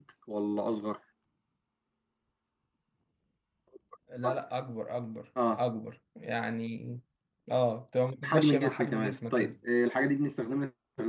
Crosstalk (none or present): present